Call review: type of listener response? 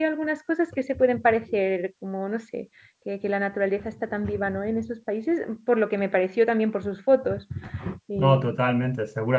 taking over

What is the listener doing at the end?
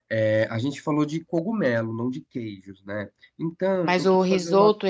taking over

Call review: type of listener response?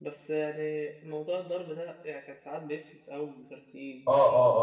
taking over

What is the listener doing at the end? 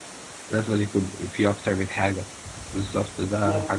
listening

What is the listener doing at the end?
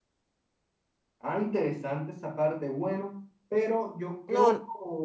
listening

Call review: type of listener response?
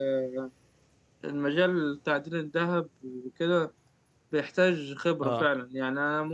listening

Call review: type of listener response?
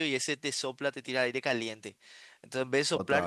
listening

